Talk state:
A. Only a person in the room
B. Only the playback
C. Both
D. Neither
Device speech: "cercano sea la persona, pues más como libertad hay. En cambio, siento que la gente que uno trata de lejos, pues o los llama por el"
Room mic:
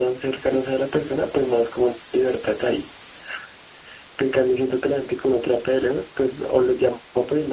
B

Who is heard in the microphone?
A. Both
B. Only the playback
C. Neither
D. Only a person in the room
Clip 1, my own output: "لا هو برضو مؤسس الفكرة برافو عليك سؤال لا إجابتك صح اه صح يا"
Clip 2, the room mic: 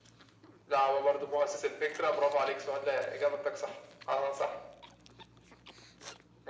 B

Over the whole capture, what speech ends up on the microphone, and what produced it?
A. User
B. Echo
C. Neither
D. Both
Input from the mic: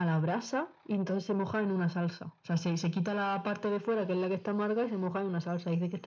B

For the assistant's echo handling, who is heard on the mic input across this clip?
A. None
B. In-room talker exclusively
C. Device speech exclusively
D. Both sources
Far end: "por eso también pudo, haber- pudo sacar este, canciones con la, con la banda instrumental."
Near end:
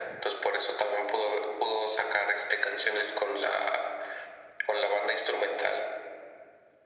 C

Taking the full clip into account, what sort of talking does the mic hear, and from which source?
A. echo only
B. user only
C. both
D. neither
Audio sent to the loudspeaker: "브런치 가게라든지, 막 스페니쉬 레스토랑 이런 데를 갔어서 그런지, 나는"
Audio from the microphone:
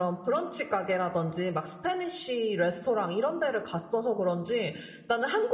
A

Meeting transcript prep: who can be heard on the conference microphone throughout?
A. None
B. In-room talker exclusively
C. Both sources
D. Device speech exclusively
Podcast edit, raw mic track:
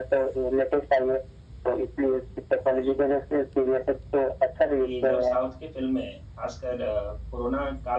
C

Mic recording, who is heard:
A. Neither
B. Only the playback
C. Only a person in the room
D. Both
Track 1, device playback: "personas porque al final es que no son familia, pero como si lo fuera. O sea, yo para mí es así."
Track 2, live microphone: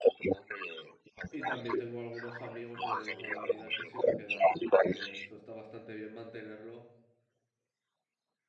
D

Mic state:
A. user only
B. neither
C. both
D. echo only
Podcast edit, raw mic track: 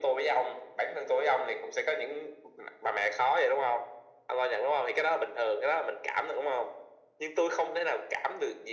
D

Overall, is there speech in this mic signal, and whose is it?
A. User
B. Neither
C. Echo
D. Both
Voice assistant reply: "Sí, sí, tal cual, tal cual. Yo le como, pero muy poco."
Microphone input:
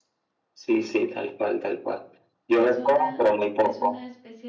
D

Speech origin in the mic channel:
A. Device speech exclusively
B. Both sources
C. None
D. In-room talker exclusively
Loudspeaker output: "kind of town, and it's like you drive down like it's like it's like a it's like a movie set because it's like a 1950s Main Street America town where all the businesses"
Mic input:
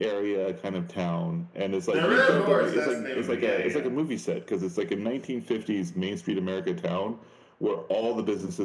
B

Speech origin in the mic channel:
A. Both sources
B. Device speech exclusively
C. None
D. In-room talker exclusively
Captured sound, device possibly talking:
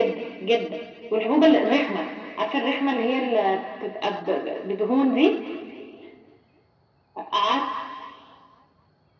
B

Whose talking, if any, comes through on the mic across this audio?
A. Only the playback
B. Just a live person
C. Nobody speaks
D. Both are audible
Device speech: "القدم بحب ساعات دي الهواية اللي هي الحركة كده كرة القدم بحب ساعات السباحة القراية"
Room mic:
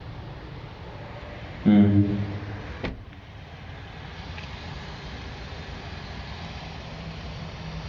B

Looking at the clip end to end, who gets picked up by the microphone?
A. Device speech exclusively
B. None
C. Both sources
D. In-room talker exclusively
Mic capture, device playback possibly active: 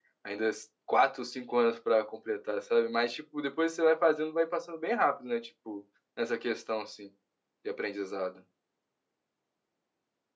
D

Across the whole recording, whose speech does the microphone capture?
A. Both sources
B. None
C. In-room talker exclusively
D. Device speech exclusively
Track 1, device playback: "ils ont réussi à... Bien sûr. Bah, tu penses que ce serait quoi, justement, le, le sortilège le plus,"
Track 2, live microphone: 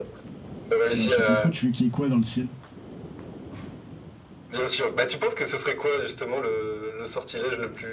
A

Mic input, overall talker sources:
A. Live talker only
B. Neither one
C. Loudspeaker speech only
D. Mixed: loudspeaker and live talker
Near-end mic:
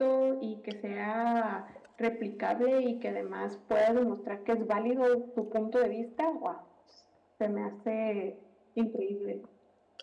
C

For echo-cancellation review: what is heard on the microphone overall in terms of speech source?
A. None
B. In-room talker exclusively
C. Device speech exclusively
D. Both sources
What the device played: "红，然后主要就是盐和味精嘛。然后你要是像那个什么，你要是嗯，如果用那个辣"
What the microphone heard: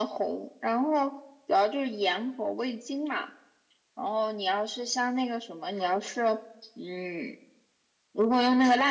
C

